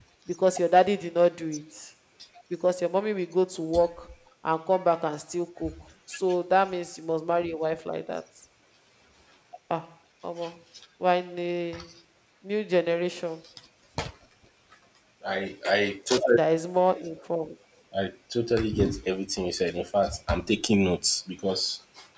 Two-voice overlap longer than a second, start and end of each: none

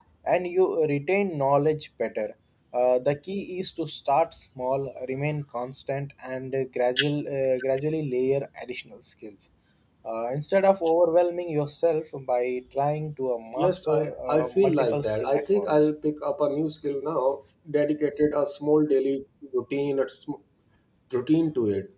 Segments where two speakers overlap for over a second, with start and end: 13.6-15.7

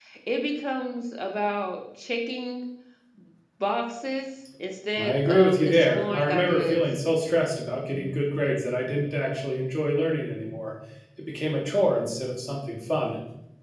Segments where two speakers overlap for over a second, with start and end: 5.0-6.8

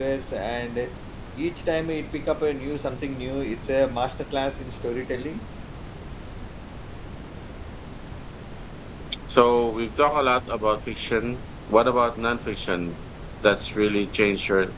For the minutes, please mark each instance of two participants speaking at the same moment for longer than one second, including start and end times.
none

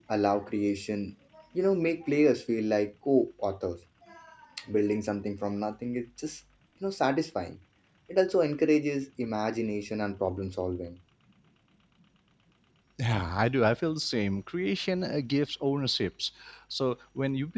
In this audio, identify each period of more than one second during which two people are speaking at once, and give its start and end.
none

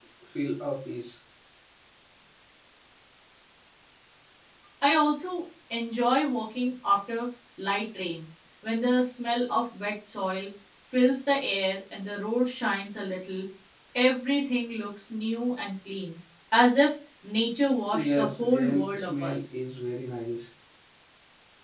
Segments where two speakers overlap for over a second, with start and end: 17.9-19.4

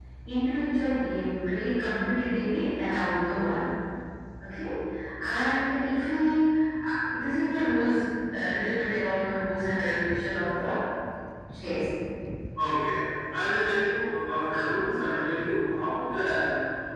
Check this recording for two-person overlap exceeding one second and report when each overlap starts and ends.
none

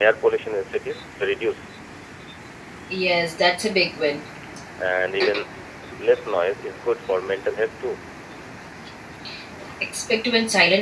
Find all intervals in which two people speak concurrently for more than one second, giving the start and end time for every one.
none

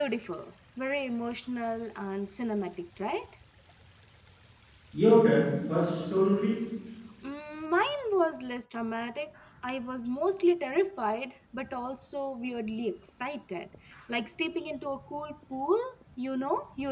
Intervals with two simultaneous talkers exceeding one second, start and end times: none

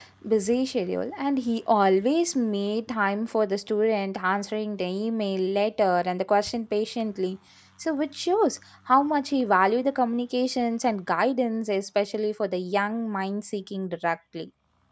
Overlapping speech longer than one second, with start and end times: none

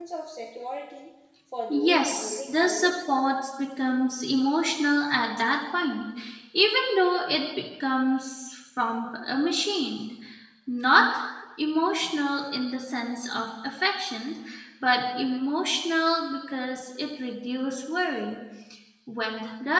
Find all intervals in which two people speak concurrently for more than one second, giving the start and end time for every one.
1.7-2.9

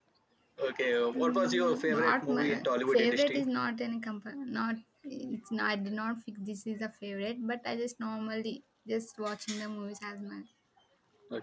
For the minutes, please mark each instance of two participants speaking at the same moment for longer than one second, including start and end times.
1.1-3.4

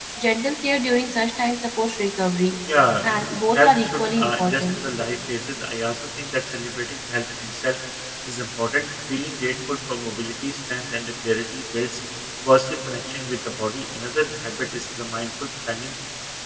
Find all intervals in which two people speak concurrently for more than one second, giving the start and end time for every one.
3.5-4.8

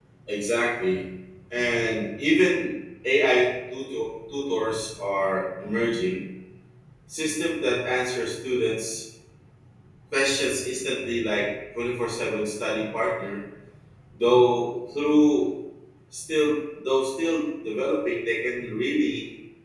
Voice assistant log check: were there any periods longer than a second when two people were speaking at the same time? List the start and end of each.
none

